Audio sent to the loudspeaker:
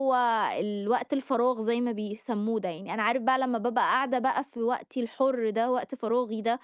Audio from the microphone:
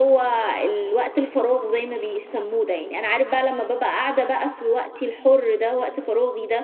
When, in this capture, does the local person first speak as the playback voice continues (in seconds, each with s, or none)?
none